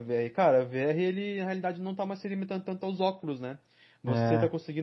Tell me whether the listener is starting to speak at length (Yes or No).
No